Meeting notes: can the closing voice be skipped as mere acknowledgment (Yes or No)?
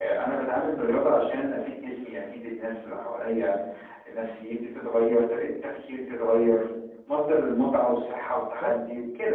Yes